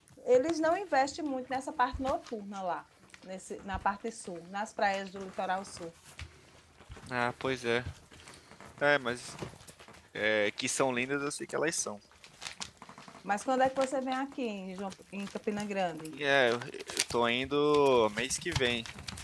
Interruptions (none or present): none